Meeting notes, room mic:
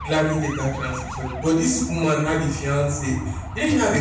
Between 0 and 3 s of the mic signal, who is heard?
user only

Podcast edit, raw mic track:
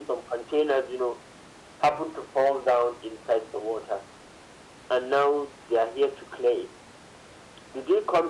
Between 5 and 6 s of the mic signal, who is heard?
echo only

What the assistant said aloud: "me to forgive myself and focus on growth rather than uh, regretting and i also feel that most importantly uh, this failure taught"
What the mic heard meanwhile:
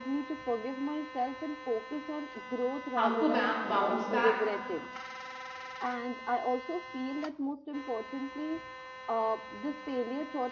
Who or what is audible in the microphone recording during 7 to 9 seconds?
echo only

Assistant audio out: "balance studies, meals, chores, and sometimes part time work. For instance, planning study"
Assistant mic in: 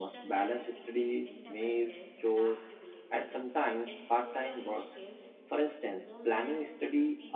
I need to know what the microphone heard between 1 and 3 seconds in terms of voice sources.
both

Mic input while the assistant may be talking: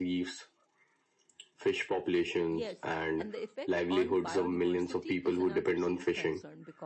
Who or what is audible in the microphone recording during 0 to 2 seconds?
echo only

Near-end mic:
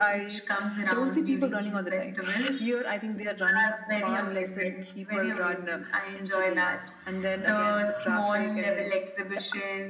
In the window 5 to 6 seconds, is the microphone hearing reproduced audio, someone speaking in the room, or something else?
echo only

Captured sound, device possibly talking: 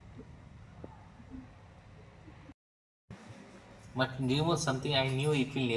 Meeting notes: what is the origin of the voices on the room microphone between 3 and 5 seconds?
user only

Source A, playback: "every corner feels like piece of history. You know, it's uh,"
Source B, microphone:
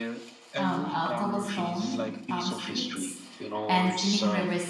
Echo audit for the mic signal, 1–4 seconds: both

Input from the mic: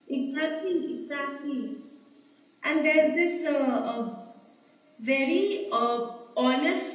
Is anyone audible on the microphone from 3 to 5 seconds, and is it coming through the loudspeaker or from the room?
echo only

